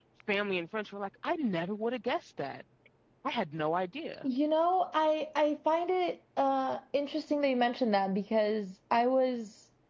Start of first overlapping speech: none

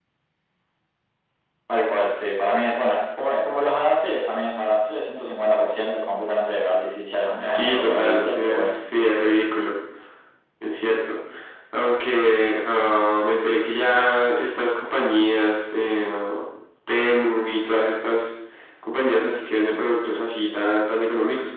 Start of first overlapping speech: 7 s

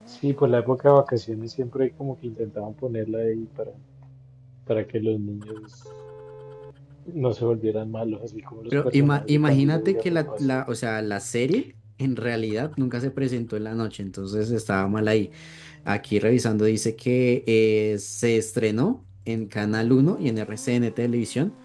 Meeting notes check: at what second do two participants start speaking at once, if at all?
9 s

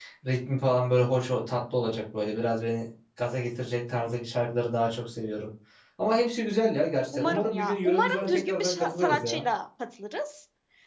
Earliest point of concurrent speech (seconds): 7 s

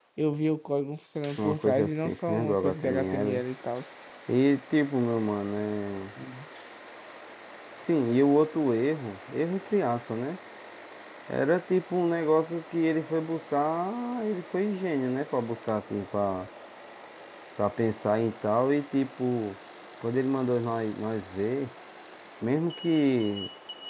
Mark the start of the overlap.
1 s

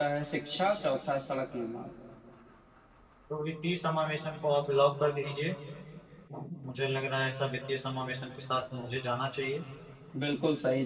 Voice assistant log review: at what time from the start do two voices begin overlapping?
none

